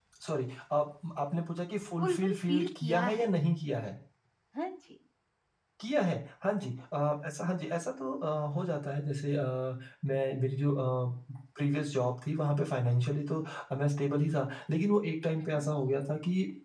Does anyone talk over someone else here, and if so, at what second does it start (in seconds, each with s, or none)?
2.0 s